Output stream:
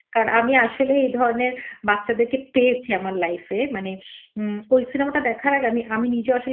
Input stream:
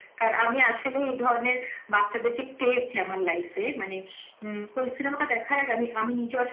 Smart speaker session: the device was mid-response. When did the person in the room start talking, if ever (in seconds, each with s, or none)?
none